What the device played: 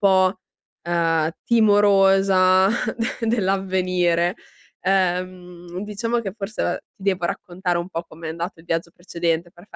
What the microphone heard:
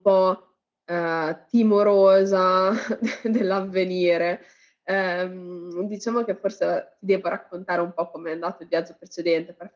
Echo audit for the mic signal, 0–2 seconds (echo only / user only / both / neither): echo only